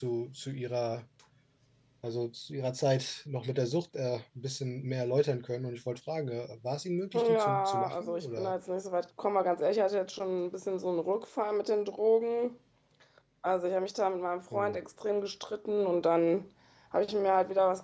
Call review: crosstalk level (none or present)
present